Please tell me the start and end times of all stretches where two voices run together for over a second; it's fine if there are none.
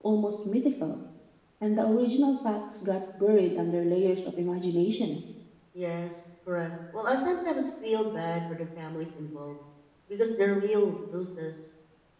none

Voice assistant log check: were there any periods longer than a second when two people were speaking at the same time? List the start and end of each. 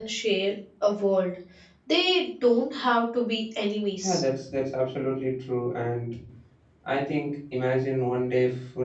none

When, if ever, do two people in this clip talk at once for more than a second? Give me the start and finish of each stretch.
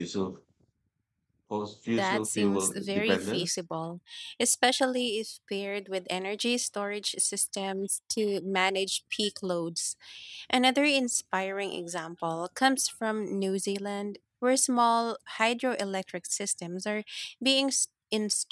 2.0-3.6

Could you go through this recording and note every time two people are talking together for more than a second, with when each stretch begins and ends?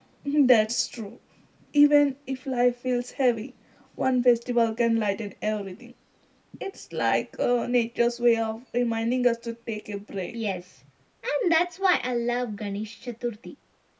none

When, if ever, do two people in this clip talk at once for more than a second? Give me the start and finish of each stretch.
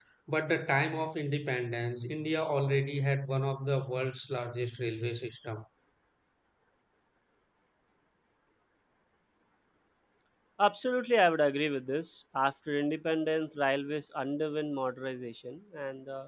none

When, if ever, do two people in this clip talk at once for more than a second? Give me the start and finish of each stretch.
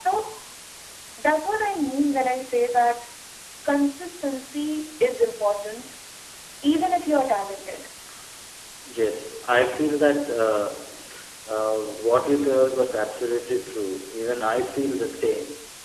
none

